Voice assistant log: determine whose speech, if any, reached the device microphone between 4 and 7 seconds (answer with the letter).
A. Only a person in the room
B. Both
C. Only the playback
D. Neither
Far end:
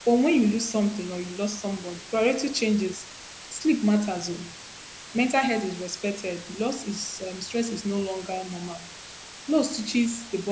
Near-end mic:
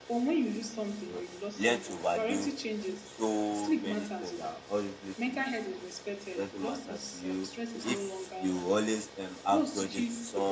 B